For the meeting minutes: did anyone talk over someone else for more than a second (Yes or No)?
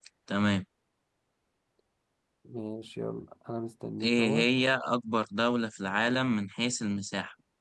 No